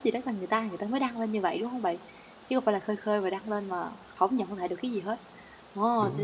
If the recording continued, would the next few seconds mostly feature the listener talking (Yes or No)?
No